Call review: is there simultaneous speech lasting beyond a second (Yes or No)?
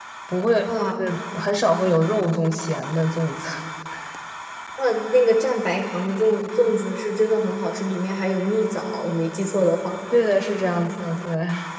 No